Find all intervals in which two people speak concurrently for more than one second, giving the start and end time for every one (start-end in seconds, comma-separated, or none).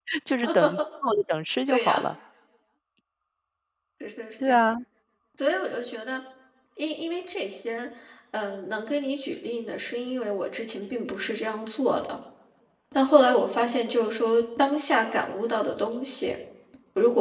none